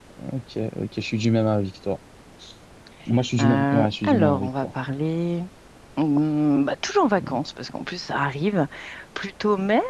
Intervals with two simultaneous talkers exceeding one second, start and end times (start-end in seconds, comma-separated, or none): 3.4-4.7